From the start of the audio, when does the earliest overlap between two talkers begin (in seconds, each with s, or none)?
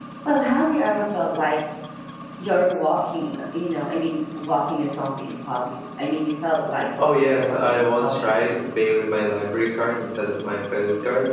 7.0 s